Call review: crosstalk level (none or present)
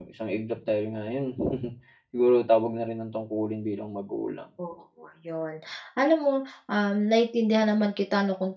none